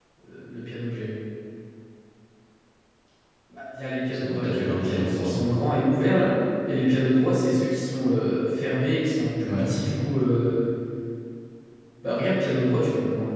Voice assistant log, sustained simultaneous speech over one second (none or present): present